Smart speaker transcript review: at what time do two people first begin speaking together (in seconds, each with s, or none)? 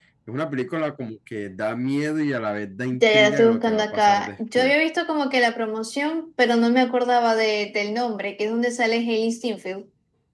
2.9 s